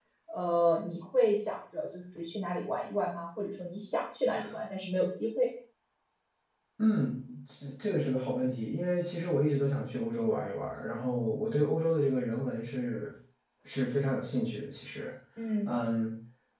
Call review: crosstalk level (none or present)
none